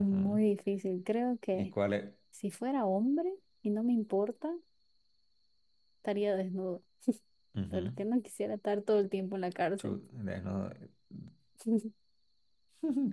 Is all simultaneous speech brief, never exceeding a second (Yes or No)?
Yes